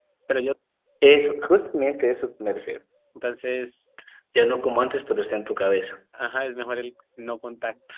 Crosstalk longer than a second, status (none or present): none